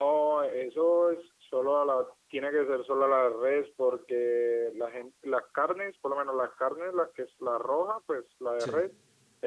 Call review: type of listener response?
listening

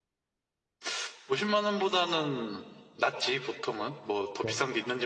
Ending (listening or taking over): listening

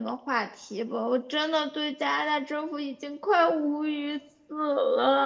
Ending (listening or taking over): taking over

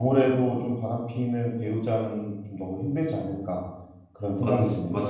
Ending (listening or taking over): taking over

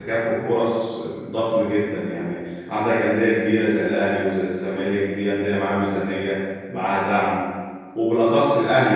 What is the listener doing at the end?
listening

